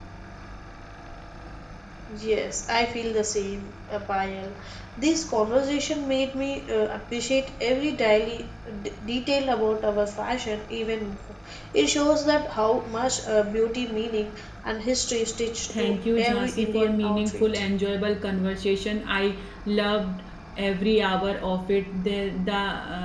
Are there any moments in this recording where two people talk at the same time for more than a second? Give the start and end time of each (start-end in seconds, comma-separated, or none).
15.8-17.6